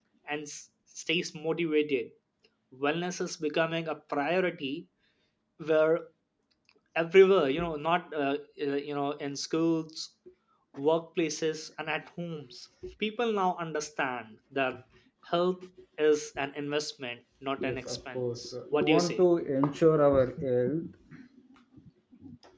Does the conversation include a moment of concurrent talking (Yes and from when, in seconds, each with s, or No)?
Yes, from 17.6 s